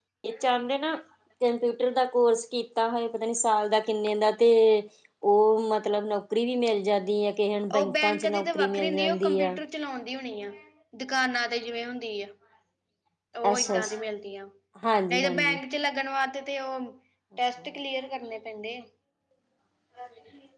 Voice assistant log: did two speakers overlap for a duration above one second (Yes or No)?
Yes